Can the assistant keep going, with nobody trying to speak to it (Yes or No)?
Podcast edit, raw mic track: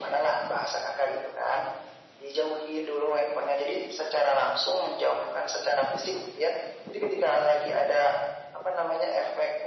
Yes